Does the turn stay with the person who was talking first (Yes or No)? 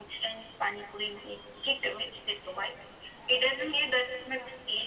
Yes